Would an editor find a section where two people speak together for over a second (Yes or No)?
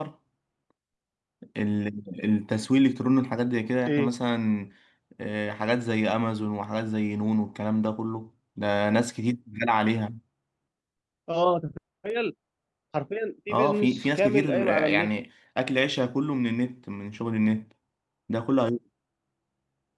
Yes